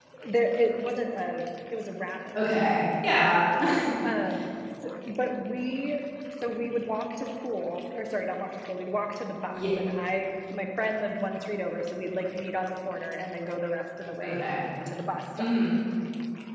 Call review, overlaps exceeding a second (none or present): none